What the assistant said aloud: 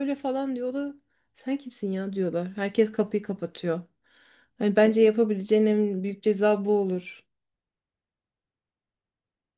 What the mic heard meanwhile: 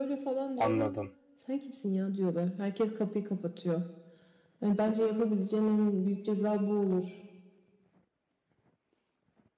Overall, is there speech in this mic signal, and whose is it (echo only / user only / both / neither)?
both